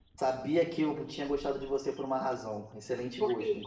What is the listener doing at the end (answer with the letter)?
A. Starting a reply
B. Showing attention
B